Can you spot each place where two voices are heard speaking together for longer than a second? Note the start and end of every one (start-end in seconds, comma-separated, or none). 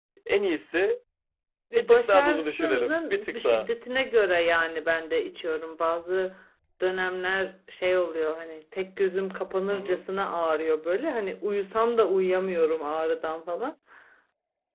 1.8-3.7